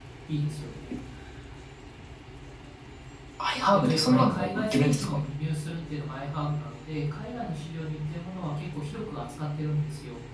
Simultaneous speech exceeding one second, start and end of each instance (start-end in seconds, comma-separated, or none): 3.7-5.2